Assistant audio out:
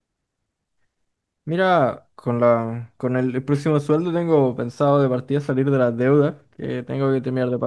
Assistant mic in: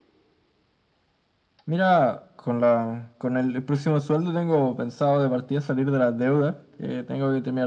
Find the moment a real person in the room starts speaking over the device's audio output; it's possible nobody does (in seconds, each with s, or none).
none